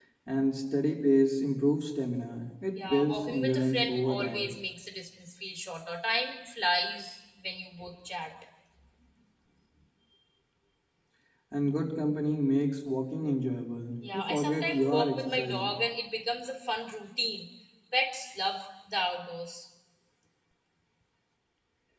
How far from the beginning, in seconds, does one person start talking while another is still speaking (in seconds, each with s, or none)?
2.9 s